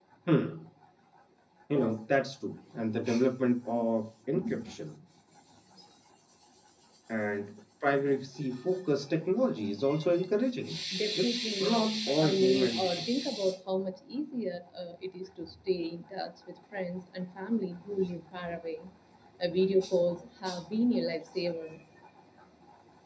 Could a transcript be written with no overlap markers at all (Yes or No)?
No